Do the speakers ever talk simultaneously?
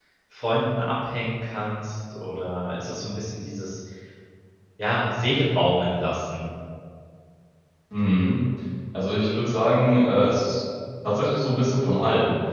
No

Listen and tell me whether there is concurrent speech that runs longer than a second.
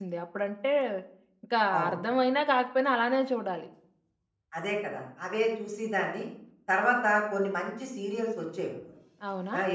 No

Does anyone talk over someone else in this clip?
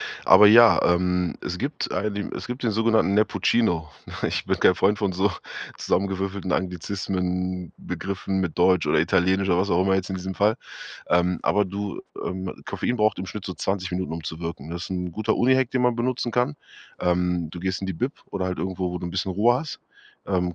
No

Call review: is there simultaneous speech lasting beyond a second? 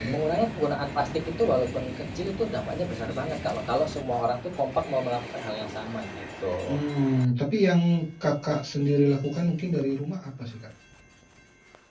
No

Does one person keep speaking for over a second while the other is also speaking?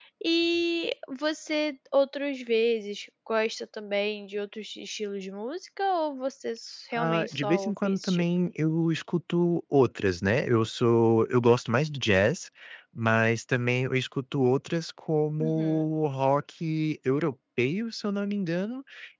Yes, from 7.0 s

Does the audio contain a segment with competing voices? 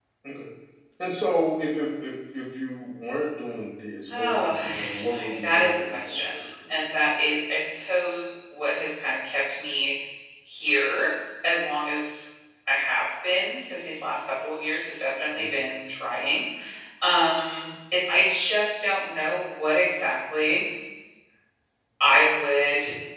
Yes, from 4.1 s

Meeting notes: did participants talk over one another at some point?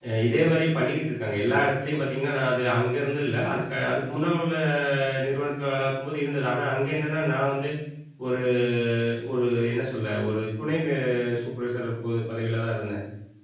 No

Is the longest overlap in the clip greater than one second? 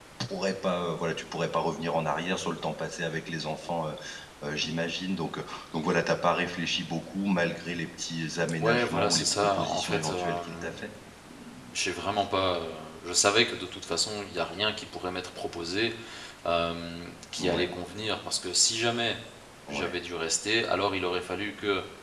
Yes, from 8.6 s

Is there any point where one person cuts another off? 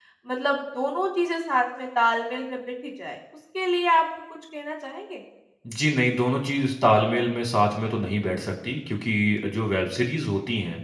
No

